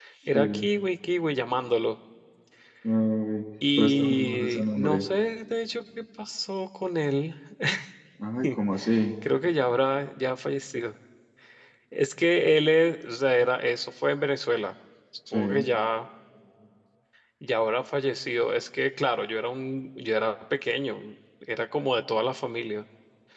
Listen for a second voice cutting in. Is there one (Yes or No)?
Yes